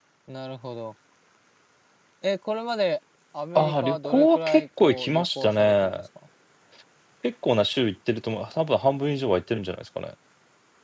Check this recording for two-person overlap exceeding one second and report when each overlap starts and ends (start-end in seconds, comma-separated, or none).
3.5-6.0